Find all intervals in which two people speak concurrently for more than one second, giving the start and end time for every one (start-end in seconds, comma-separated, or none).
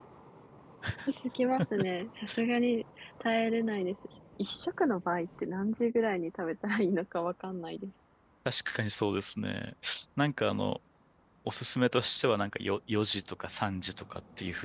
none